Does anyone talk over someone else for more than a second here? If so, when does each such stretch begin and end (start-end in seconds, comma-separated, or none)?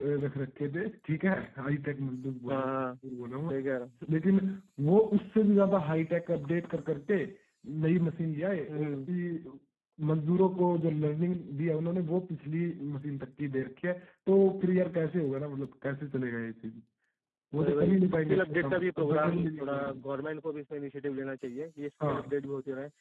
17.6-20.0